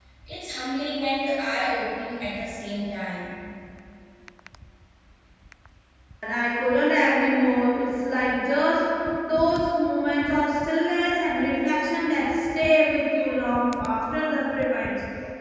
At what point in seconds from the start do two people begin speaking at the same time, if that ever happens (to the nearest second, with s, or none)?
none